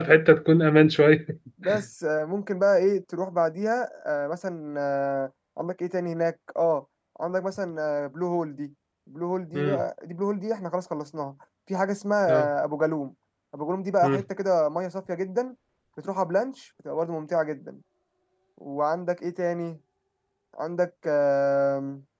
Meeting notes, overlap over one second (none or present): none